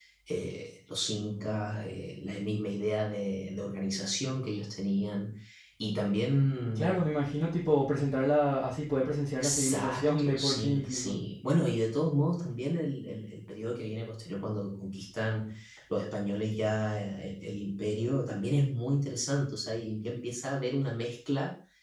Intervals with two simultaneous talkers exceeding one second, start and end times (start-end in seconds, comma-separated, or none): 9.4-11.2